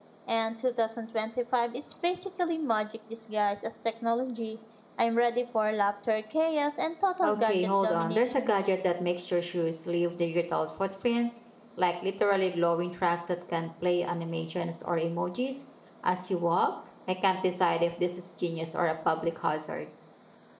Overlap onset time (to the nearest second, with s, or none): 7 s